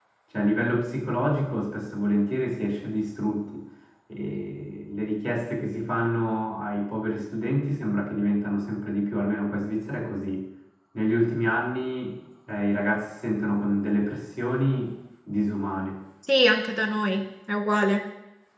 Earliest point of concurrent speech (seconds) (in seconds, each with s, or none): none